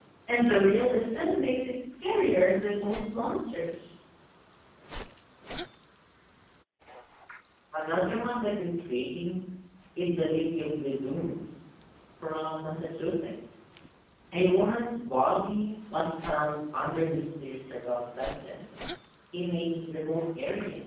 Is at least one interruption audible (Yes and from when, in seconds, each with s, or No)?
No